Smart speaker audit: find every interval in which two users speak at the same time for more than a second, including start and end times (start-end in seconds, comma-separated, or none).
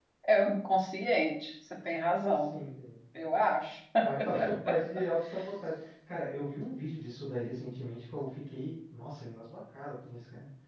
none